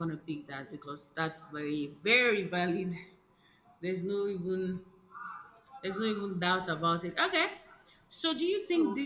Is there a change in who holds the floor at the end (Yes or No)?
No